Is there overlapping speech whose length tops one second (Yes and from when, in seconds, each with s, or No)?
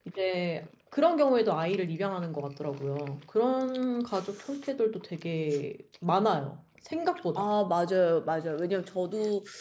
No